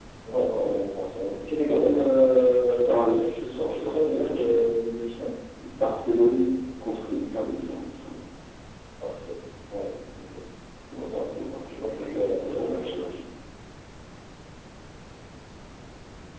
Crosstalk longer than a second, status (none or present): present